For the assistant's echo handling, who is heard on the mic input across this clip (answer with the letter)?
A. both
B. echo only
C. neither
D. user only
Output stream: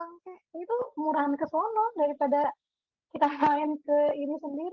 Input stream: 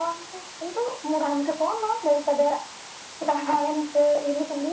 B